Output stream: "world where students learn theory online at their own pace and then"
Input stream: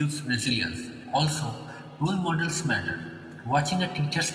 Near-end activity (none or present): present